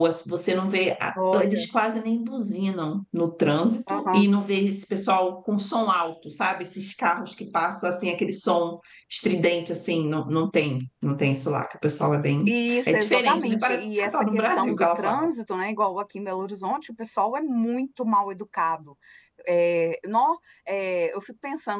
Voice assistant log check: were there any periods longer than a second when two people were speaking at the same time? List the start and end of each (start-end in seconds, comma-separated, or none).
12.5-15.3